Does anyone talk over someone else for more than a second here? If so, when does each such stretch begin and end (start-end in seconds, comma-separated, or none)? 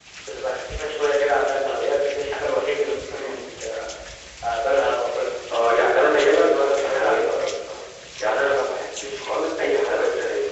5.8-7.3